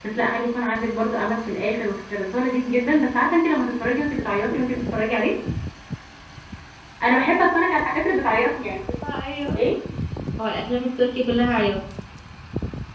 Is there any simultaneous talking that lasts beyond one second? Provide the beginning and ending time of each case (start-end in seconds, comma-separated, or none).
none